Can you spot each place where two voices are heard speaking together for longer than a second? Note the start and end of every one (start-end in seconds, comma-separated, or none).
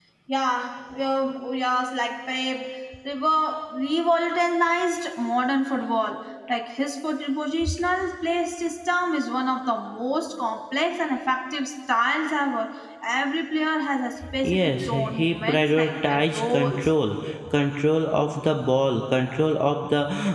14.4-16.9